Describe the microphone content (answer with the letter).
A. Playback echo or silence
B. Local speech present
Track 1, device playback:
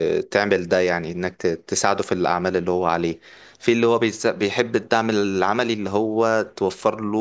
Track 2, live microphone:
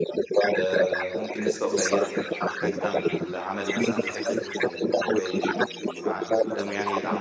B